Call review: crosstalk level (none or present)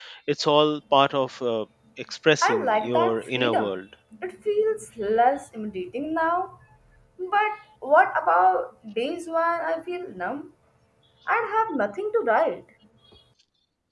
present